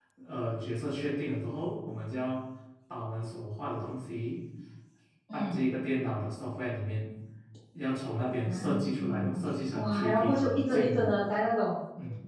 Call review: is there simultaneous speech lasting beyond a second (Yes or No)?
Yes